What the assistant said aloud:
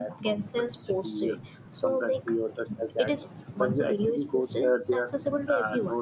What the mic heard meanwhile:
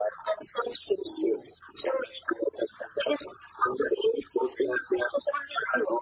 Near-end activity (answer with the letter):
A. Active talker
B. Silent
B